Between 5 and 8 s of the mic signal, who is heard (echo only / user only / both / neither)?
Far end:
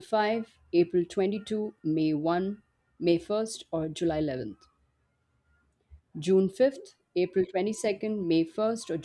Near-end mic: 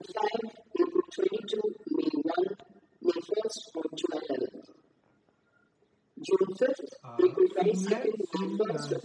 both